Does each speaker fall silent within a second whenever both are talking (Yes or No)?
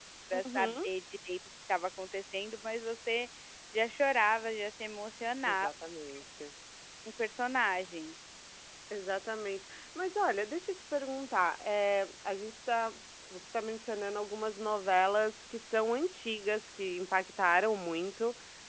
Yes